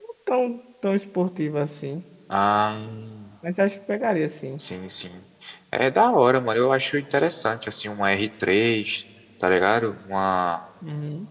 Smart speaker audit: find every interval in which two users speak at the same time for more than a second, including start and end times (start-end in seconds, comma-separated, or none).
none